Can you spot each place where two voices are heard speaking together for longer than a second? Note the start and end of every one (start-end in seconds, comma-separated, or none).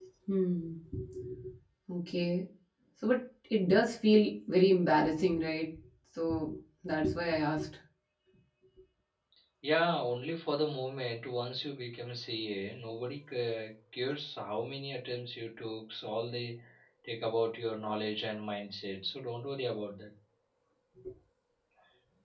none